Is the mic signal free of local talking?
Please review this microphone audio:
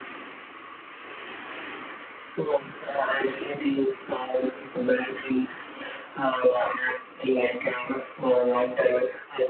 Yes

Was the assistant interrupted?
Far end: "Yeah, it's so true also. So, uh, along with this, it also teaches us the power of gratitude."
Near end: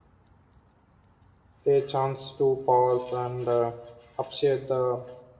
Yes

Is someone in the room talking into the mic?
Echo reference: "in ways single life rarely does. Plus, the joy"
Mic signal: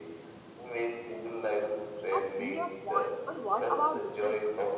Yes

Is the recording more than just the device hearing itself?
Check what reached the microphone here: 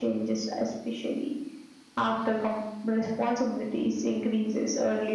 No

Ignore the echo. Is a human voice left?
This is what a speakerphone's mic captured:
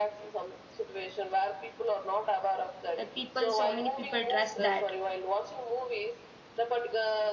Yes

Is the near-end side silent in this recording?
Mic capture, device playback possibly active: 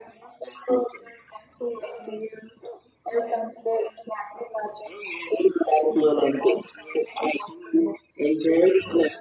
Yes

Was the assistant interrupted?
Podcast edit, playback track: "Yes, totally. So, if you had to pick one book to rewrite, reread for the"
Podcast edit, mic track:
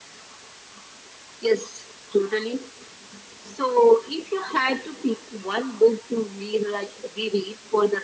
No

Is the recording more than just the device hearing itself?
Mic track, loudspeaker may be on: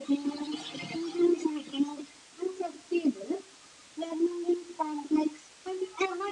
No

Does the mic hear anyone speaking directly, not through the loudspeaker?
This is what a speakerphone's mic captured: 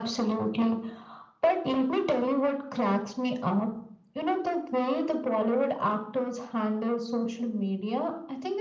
No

